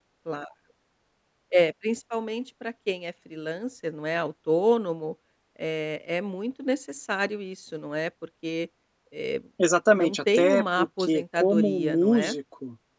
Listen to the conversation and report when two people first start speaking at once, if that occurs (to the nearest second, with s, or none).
10 s